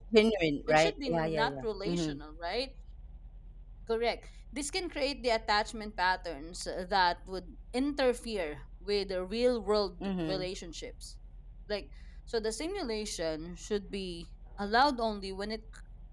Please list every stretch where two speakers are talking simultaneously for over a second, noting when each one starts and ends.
0.7-2.2

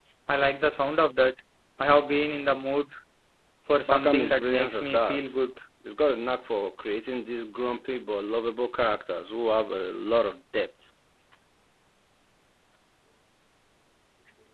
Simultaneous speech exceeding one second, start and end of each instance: 3.9-5.3

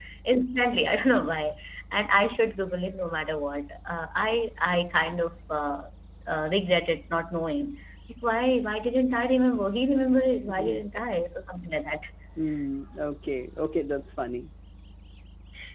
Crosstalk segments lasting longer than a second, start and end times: none

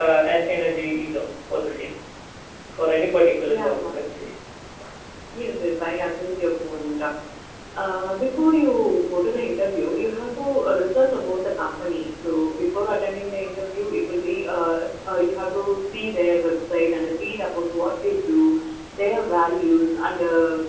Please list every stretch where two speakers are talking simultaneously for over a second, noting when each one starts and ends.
none

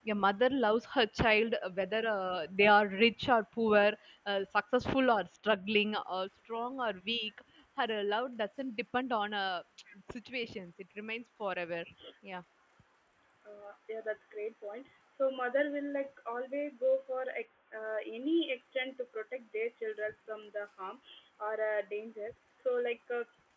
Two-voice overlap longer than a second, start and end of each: none

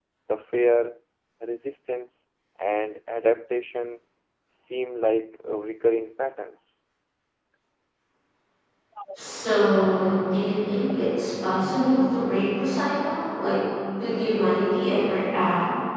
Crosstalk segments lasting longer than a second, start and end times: none

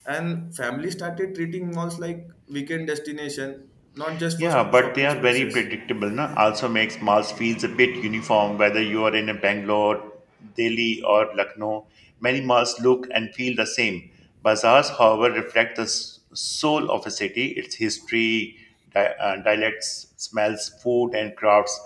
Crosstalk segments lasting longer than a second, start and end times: 4.4-5.6

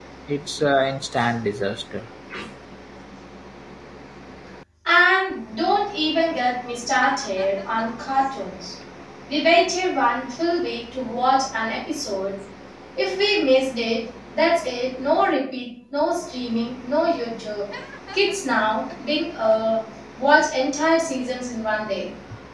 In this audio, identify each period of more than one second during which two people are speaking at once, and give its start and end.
none

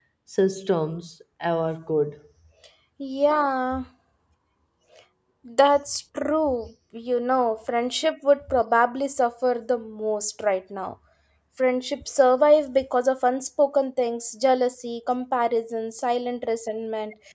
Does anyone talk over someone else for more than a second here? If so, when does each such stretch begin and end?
none

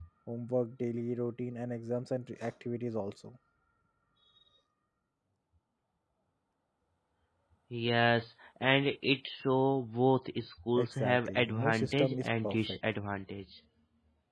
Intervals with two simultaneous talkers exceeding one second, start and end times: 10.8-12.8

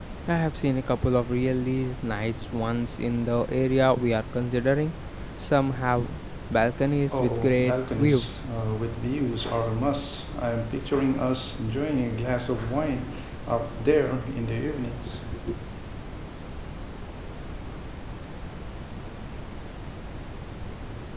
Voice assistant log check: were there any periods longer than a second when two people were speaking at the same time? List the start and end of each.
7.1-8.4

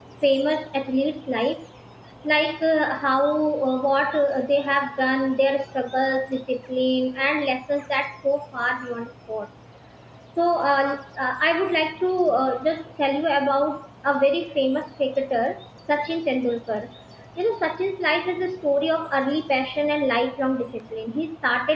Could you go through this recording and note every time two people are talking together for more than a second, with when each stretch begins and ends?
none

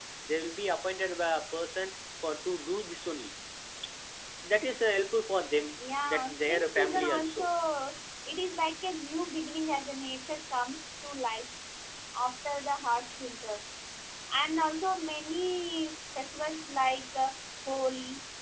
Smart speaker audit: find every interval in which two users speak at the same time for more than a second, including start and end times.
6.0-7.5

